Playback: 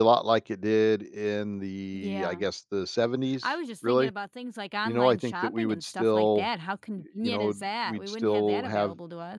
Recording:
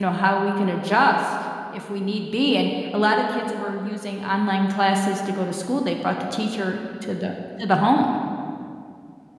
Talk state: user only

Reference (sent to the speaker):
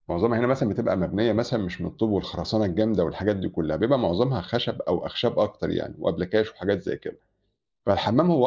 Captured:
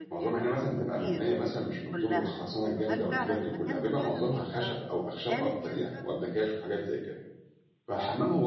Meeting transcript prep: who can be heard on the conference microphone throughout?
both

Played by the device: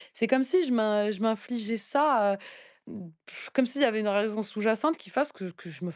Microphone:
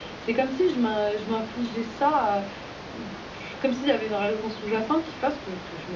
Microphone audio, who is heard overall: echo only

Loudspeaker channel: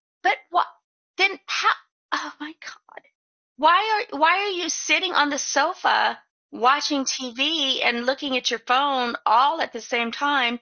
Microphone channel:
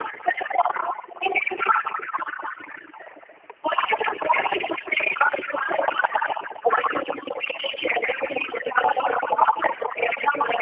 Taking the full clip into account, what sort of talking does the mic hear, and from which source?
echo only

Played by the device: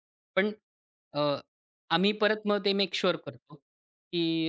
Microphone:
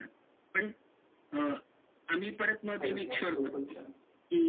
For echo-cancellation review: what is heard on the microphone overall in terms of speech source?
both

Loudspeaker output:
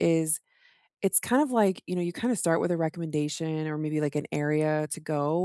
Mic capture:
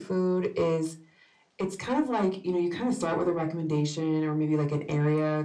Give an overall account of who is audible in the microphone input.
echo only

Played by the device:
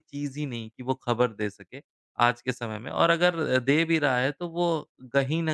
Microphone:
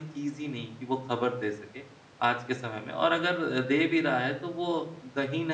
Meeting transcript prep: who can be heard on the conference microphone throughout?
echo only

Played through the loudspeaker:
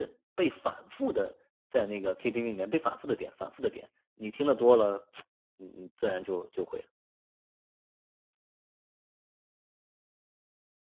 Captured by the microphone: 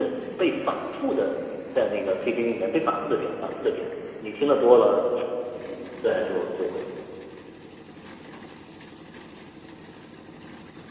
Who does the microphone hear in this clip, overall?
echo only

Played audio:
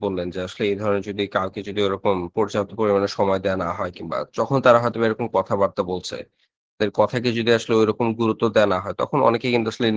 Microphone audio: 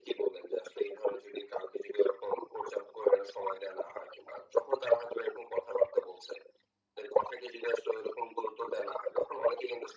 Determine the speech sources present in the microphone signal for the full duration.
echo only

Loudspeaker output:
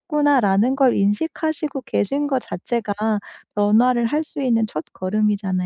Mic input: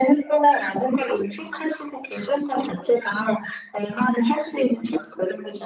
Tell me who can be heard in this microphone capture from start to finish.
echo only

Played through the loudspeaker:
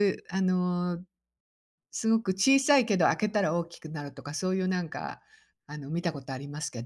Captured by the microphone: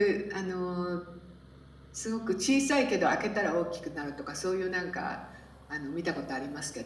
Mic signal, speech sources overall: echo only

